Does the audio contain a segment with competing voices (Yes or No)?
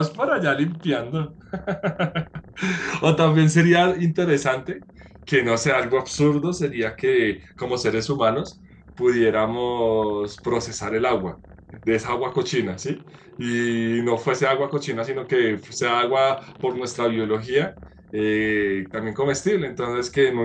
No